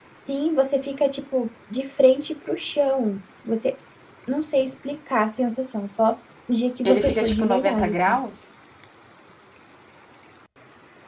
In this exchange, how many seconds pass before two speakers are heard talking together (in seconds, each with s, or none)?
6.8 s